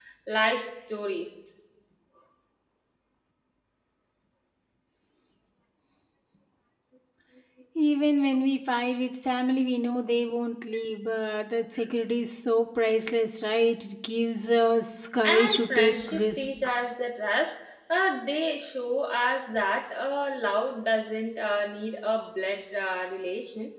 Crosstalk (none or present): present